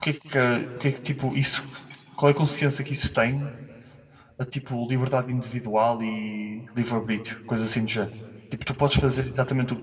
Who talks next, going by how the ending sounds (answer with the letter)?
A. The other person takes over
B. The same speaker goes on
B